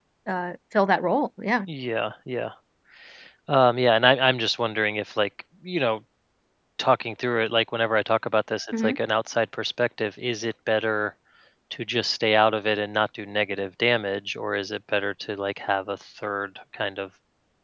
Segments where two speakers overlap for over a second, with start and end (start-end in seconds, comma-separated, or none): none